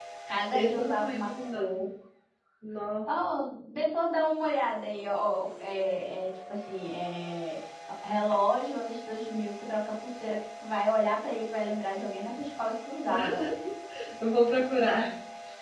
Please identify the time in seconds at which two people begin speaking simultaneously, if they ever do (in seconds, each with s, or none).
0.5 s